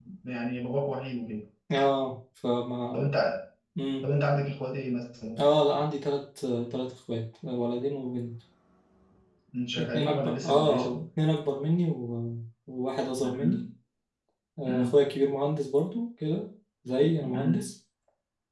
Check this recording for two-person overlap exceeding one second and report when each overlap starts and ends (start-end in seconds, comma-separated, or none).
9.8-11.0